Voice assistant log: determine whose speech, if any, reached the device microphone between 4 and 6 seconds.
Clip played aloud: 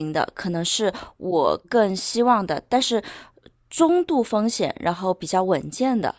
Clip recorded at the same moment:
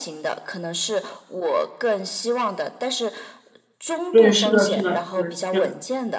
both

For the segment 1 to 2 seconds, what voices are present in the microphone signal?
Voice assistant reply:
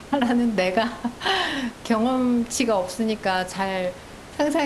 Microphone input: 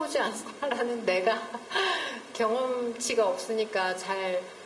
echo only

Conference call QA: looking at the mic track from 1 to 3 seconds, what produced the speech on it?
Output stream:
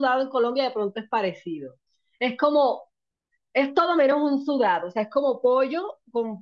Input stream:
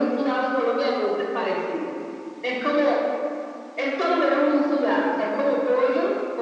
echo only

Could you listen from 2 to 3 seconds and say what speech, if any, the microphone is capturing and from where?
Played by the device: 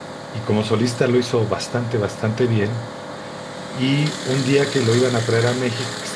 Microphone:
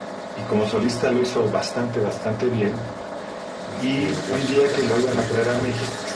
echo only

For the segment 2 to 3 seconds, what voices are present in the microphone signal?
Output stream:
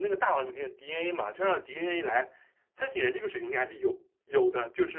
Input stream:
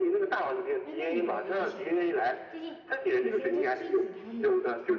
both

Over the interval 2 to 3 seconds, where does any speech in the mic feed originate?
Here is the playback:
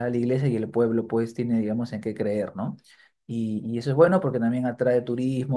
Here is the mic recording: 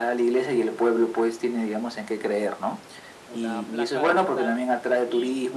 echo only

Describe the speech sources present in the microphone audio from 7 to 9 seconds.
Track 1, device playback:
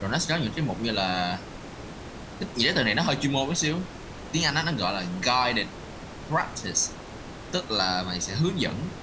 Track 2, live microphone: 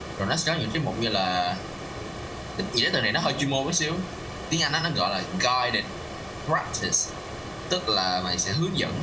echo only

